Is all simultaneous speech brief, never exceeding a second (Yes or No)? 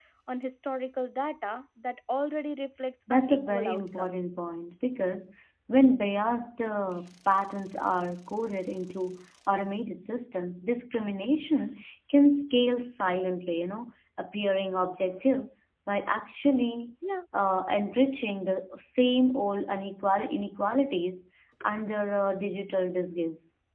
No